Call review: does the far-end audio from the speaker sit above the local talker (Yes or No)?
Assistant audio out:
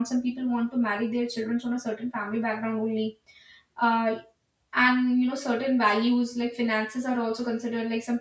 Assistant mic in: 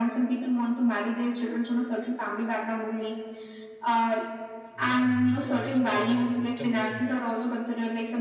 Yes